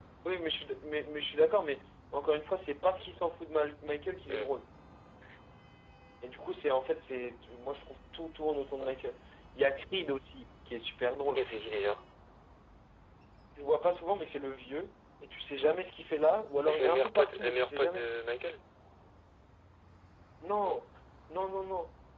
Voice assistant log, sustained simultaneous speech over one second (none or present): present